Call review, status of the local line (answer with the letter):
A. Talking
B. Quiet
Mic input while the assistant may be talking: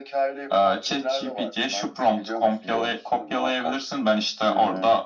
B